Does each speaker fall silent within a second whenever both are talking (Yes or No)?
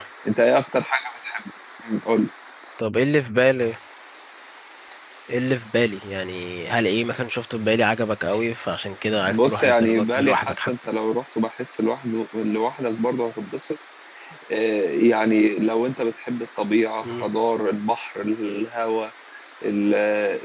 No